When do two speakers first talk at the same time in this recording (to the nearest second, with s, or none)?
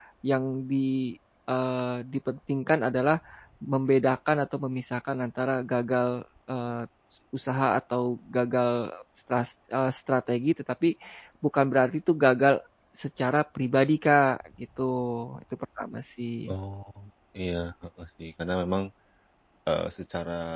none